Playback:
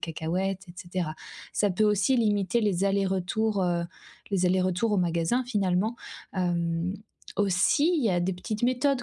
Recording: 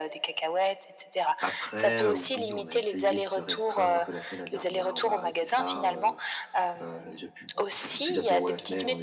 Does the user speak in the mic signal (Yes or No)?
Yes